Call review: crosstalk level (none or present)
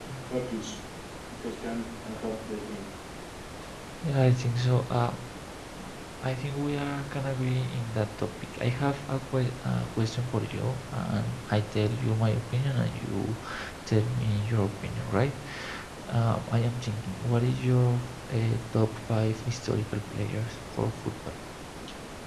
none